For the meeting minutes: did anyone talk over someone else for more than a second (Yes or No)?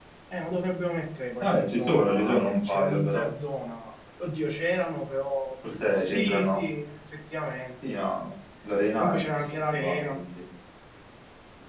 Yes